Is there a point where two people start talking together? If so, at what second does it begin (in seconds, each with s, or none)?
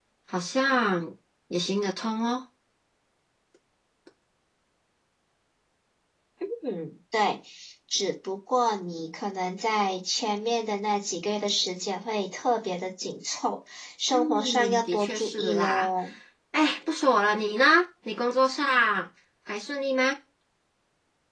14.1 s